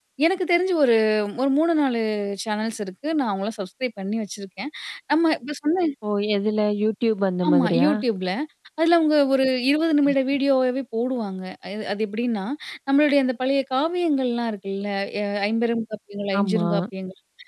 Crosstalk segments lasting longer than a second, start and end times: none

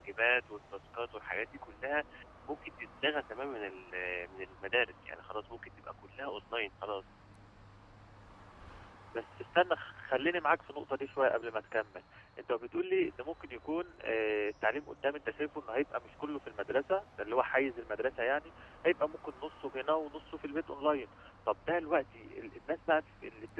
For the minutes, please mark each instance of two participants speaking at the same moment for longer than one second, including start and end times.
none

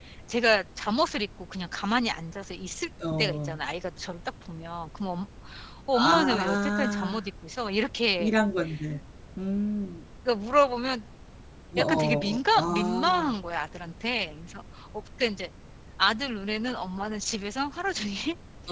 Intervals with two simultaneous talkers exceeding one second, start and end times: 6.0-7.2, 11.8-13.3

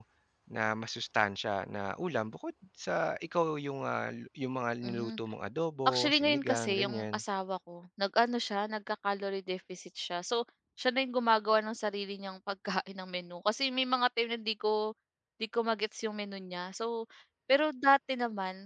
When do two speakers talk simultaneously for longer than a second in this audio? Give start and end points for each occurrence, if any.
5.8-7.2

